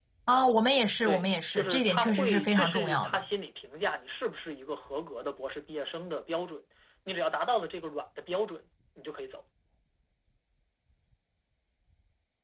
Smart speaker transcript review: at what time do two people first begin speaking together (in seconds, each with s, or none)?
1.0 s